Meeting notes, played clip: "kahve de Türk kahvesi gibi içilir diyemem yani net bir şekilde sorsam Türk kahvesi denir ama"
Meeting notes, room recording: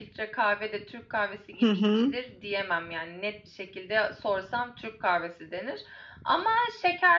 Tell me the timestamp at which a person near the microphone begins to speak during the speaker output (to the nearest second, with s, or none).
2 s